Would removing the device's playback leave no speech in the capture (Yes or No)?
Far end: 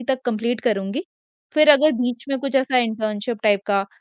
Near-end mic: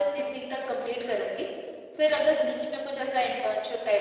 Yes